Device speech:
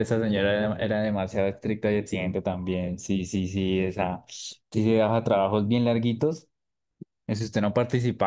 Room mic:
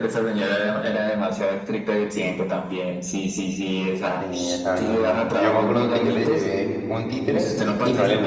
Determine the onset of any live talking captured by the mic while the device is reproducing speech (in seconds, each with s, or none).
4.1 s